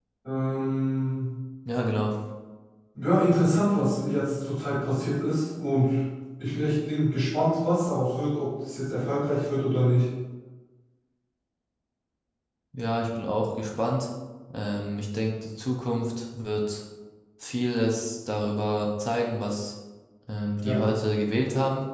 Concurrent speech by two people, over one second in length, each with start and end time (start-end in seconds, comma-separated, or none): none